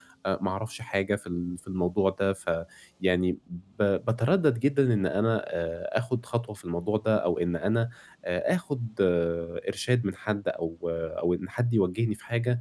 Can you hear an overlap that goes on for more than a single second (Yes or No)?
No